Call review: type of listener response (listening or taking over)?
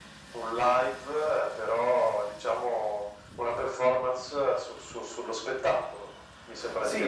taking over